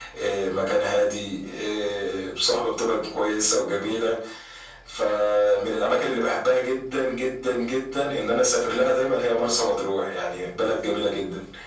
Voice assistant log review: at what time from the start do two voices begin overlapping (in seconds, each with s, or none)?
none